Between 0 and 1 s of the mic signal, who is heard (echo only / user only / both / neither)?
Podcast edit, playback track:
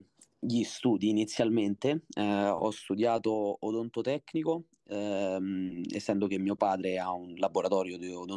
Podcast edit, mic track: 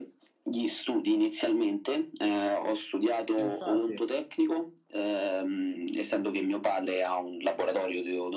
echo only